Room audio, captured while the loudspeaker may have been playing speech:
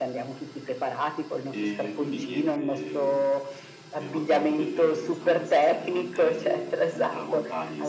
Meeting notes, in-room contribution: present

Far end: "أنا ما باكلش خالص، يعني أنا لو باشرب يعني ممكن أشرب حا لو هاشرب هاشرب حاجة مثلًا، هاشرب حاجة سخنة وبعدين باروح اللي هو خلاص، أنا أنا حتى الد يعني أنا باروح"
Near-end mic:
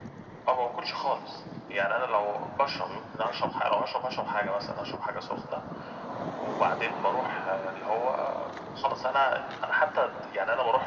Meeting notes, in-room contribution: none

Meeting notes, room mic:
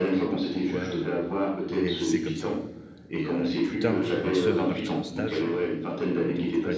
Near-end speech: present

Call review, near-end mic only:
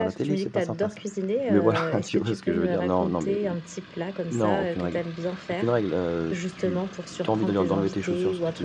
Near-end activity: present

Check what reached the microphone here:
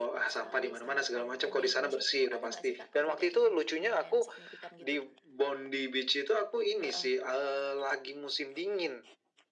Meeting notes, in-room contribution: present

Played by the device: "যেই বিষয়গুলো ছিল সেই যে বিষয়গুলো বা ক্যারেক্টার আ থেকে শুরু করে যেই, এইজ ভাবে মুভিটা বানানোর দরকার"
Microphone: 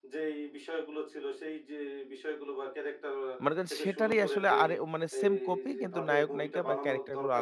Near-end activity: present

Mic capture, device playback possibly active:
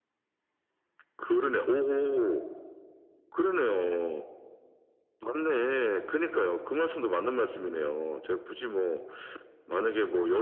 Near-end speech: none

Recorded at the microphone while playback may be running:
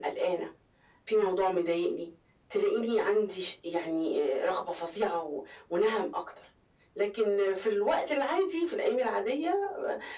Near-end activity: none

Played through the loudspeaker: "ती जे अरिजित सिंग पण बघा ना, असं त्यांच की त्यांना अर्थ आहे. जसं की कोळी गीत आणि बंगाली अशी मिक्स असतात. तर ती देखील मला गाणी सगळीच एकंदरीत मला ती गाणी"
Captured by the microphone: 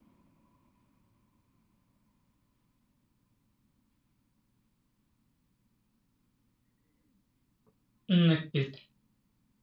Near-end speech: present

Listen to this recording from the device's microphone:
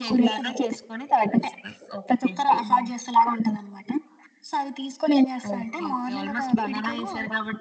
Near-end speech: none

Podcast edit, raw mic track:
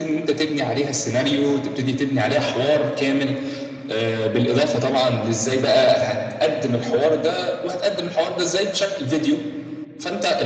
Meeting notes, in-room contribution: none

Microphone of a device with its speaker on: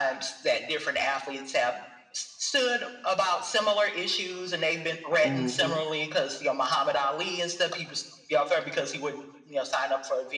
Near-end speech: present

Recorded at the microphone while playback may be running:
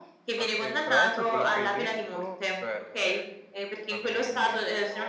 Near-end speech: present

